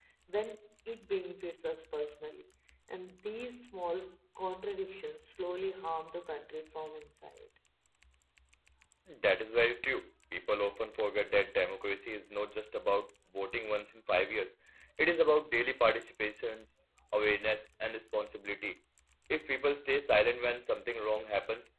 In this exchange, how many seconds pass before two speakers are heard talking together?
none

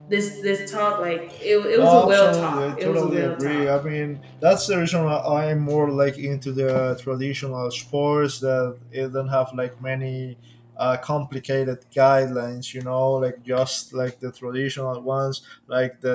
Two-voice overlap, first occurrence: 1.8 s

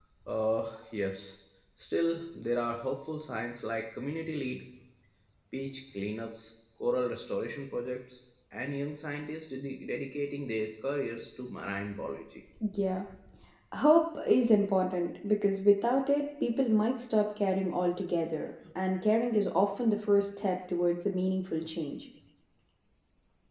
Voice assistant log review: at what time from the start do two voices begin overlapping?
none

